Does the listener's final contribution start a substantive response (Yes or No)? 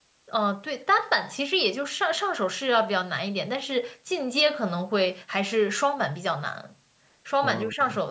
No